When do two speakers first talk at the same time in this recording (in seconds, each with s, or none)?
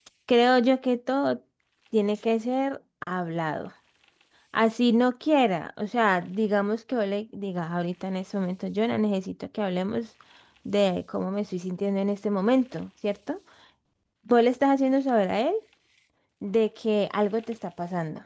none